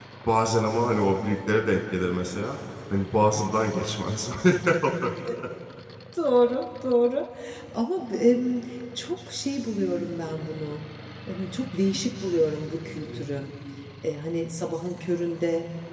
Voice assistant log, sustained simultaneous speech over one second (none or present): none